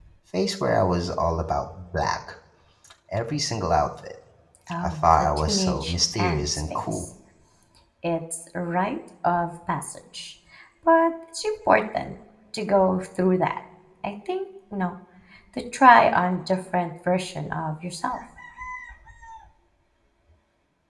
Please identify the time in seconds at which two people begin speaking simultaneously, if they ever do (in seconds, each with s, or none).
4.8 s